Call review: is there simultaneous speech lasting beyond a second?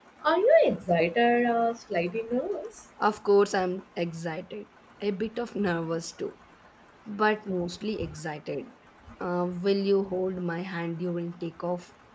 No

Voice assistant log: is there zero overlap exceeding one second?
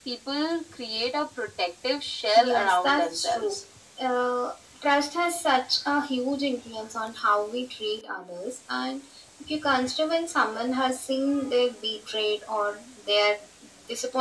No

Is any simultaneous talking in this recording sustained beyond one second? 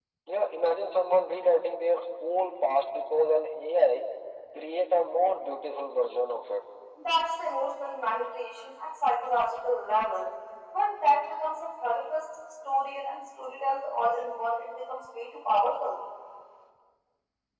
No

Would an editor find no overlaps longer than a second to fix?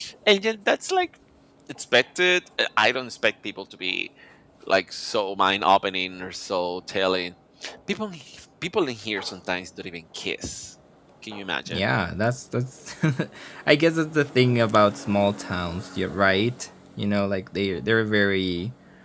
Yes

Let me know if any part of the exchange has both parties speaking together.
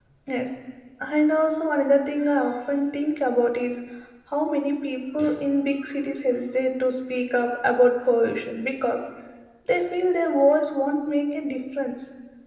No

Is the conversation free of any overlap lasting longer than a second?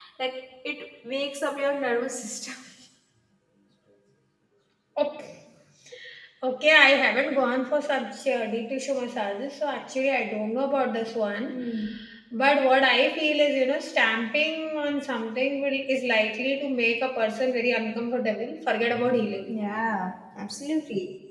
Yes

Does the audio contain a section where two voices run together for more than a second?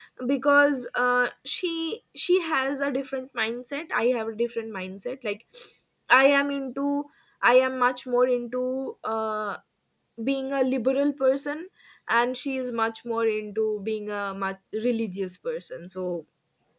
No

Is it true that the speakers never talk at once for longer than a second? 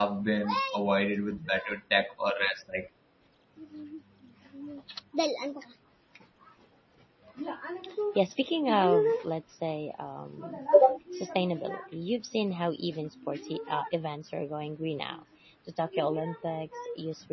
Yes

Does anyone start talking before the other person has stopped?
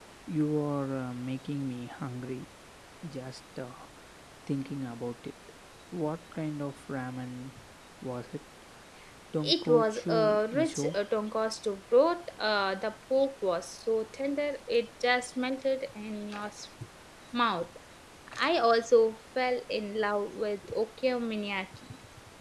Yes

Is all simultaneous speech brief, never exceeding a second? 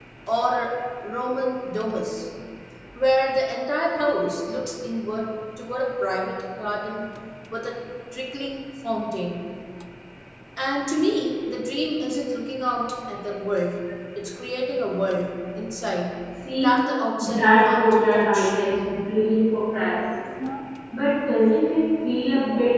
No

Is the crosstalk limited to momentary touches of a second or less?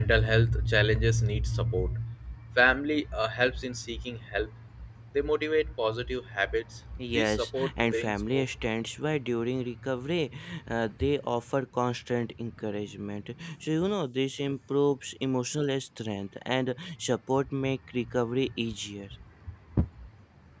No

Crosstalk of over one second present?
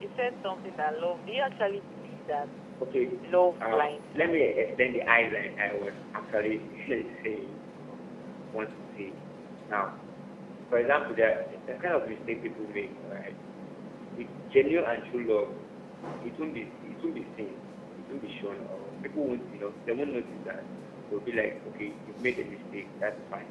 Yes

